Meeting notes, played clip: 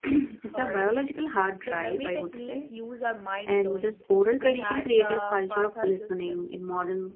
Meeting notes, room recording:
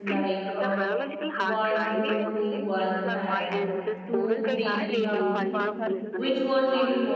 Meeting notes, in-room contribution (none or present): present